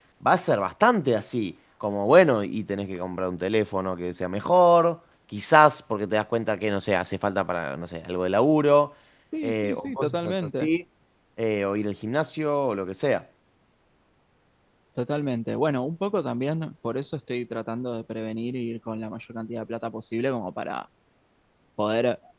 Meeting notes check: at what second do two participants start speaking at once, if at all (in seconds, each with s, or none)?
9.4 s